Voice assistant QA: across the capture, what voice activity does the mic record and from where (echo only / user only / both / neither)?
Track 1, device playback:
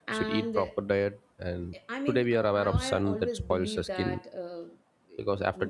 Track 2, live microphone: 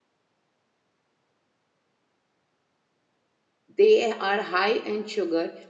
user only